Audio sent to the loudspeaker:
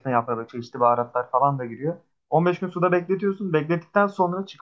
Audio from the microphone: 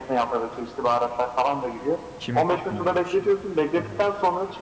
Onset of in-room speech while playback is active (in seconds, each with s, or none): 2.2 s